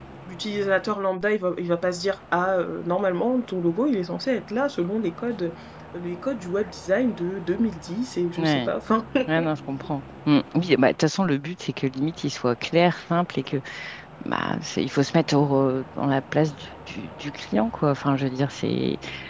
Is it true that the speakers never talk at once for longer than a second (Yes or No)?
Yes